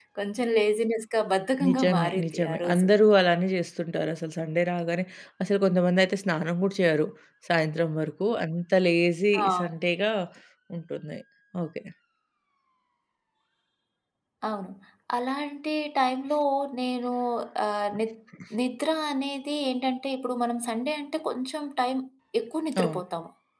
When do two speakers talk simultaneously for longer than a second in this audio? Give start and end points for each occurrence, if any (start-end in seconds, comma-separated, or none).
1.6-2.9